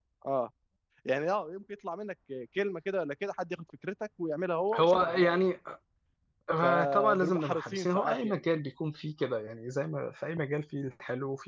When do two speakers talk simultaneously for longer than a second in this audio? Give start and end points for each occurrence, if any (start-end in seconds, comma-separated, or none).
6.6-8.4